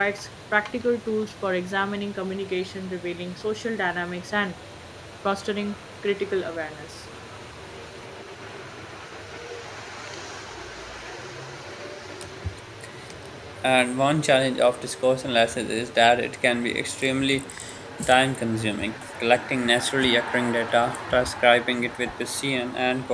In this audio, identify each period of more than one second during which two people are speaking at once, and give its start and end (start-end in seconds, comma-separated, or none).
none